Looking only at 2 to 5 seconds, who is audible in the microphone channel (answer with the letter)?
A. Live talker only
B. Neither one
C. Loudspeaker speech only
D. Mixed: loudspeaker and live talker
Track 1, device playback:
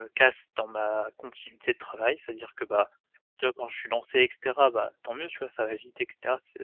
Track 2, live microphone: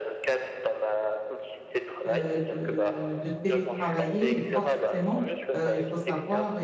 D